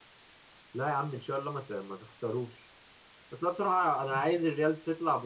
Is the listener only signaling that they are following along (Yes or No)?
Yes